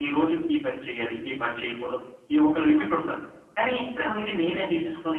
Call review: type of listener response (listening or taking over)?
listening